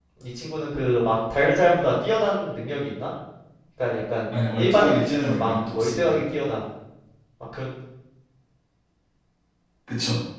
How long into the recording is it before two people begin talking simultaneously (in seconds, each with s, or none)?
4.6 s